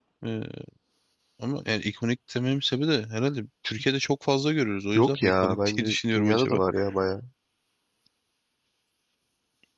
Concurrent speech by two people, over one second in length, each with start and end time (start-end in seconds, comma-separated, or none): 5.0-6.6